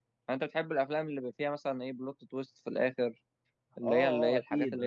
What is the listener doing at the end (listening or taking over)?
taking over